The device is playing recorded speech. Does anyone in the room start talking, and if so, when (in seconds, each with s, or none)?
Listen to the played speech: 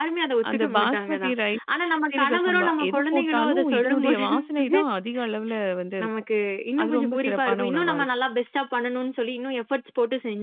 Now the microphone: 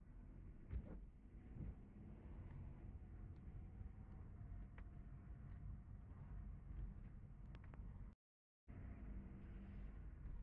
none